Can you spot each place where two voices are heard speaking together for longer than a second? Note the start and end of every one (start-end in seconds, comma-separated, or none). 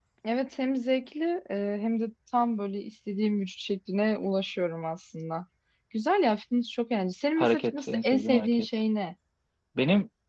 7.4-8.7